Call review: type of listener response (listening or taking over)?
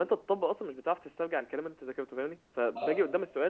listening